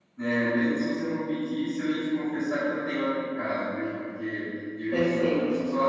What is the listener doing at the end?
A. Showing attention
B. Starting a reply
A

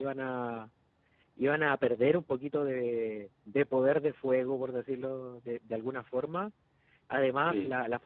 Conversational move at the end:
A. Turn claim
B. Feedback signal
B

